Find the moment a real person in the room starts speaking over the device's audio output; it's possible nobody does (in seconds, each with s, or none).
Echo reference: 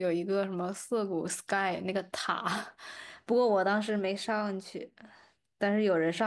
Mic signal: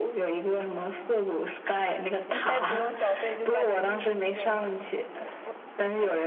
2.2 s